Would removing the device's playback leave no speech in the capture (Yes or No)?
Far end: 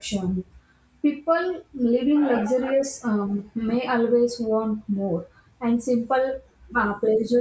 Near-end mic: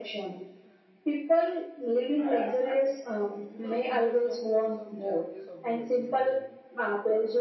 No